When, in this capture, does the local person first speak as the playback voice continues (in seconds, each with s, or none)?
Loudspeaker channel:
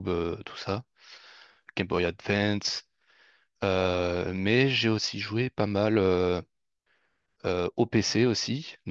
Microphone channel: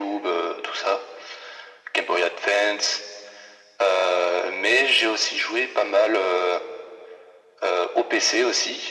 none